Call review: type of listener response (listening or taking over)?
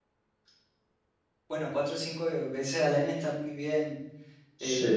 listening